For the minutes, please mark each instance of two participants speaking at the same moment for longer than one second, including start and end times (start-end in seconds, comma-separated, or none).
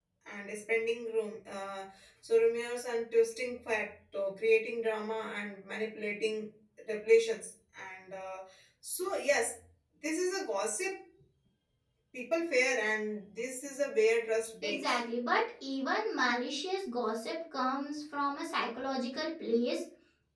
none